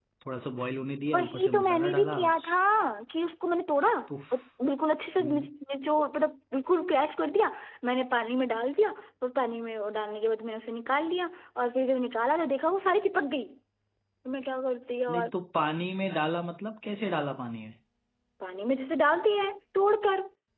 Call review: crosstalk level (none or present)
present